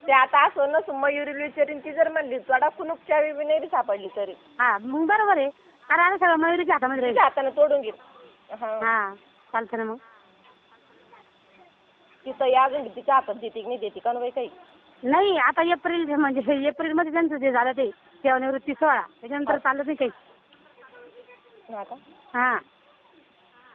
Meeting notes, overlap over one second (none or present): none